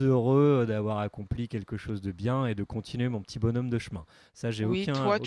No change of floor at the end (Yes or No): No